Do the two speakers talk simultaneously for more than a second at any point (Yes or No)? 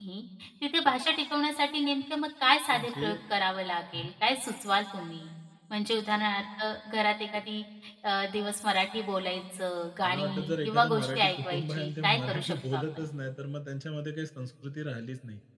Yes